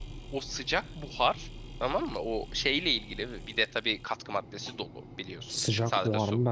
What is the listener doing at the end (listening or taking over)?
taking over